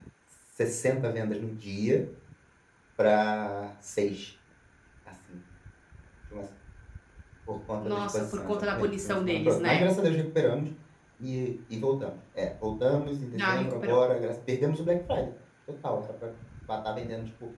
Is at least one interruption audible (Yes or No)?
Yes